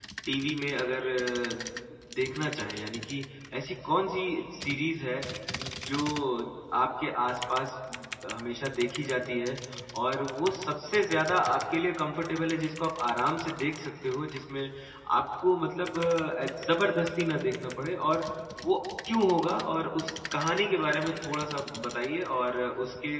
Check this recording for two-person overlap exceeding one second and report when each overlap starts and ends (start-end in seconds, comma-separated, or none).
none